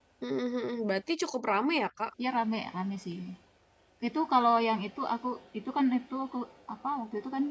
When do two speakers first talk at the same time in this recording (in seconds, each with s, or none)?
none